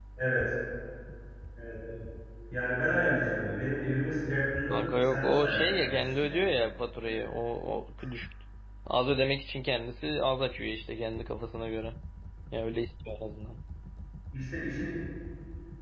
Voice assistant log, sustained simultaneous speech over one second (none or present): present